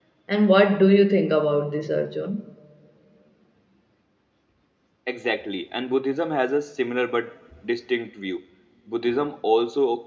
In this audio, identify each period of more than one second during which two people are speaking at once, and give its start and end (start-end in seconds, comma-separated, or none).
none